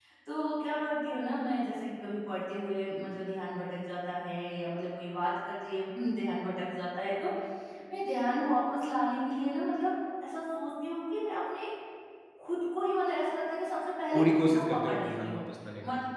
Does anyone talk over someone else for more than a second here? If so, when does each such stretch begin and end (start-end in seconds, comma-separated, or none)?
14.1-15.4